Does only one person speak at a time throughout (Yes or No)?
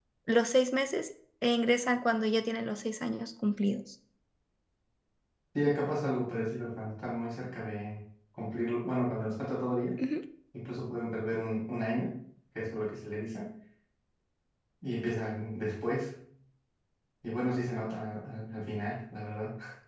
Yes